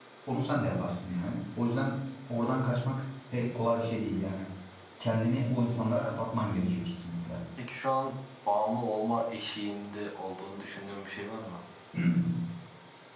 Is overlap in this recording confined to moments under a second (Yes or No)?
Yes